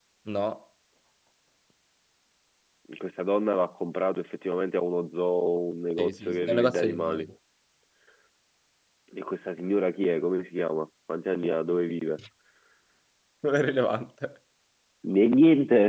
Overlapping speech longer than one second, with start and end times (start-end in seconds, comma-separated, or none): 6.0-7.2